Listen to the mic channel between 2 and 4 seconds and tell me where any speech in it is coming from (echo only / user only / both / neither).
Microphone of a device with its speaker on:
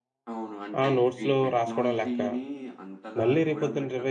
both